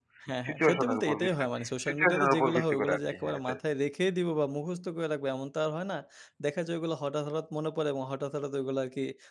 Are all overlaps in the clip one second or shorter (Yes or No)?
No